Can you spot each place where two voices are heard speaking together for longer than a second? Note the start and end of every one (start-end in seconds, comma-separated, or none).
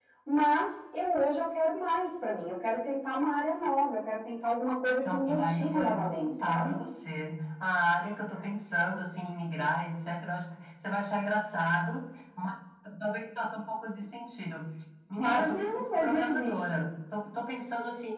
4.8-6.8, 15.2-16.9